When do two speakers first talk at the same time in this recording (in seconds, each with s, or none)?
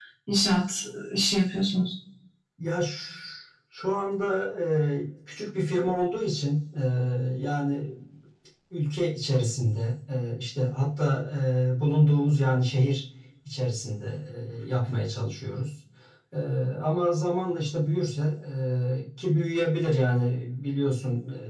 none